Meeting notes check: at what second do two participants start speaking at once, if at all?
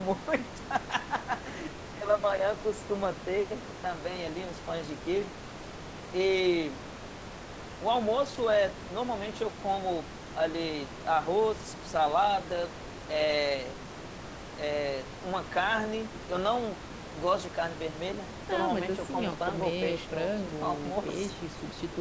18.5 s

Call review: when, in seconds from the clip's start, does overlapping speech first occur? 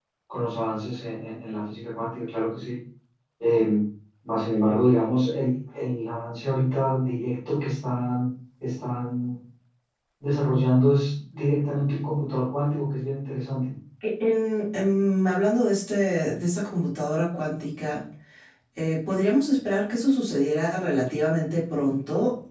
none

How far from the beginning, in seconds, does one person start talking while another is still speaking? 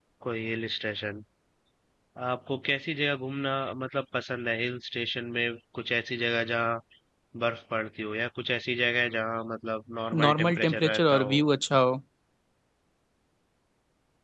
10.1 s

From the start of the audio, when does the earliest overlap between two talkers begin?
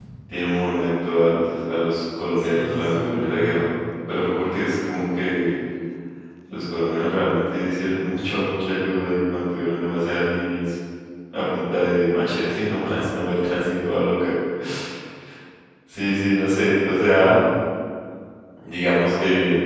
2.4 s

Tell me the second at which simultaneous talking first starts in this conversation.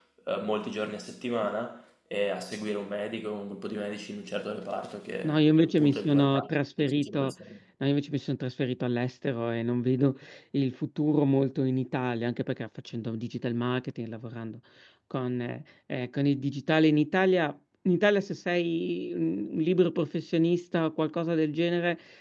5.2 s

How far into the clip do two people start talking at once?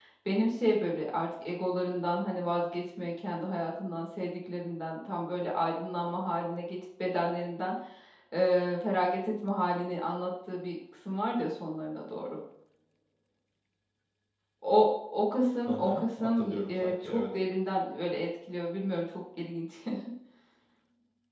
15.7 s

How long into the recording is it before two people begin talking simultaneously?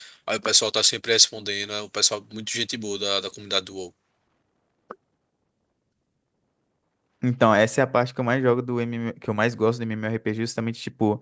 none

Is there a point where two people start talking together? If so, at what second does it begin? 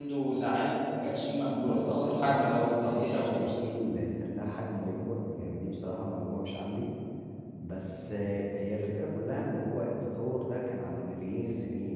1.7 s

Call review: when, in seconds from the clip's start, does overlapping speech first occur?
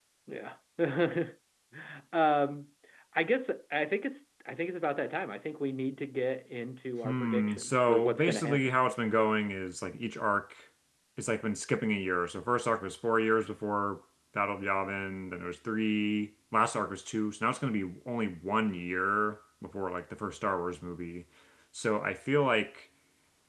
7.0 s

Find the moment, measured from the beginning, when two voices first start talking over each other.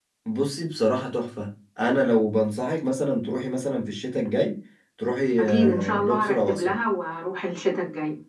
5.4 s

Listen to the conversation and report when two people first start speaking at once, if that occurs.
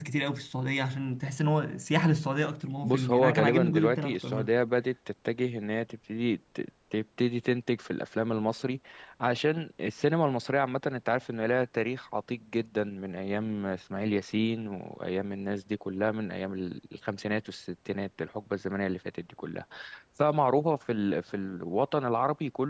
2.8 s

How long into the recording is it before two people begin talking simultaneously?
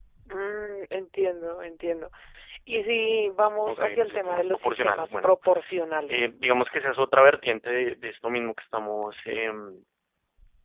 3.7 s

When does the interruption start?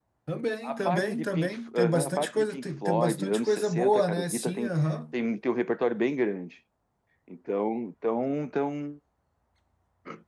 0.6 s

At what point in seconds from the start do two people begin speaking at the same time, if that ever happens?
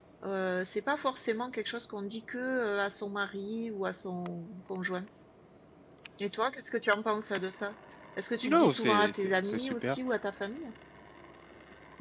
8.4 s

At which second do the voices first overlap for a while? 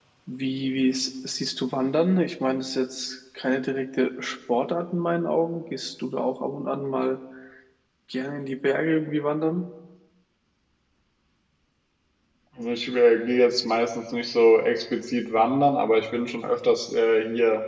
none

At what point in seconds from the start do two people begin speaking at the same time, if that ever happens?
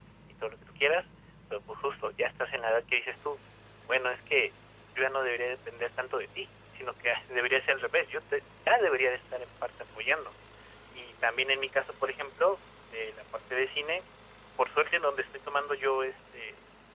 none

